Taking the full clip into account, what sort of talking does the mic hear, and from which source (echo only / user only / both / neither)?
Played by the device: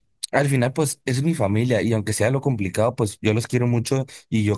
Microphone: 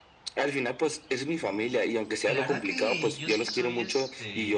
both